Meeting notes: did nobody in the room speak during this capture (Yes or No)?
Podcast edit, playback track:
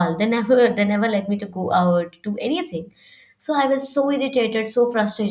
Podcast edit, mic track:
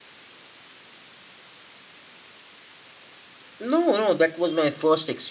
No